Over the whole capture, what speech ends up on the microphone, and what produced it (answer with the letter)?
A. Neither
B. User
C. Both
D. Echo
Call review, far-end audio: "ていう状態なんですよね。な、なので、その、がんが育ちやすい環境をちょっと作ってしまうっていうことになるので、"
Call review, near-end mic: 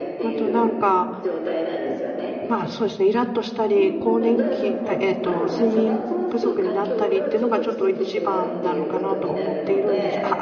C